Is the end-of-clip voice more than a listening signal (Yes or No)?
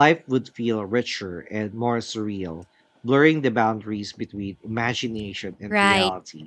Yes